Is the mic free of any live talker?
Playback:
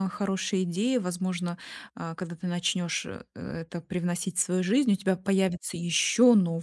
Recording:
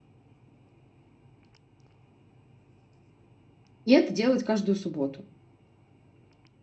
No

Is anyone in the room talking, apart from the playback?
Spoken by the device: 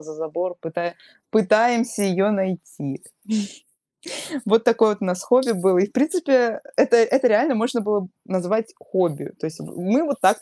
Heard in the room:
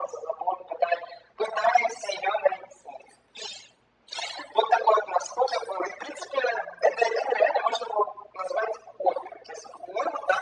No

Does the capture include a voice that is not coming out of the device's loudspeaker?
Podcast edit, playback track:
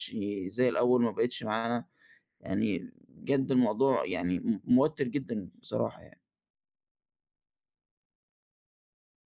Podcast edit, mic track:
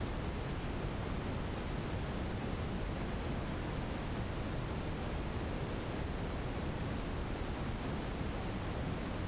No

